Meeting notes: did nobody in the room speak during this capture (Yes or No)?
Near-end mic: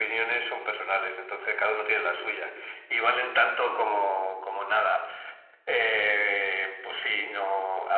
Yes